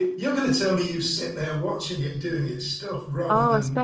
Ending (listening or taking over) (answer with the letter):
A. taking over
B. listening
A